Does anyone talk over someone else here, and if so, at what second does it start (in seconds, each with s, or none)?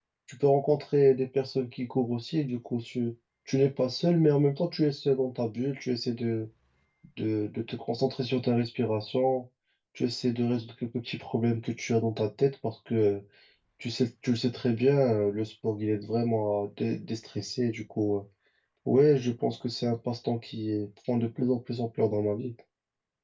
none